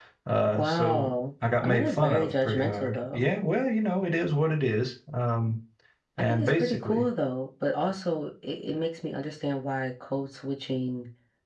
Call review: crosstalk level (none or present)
present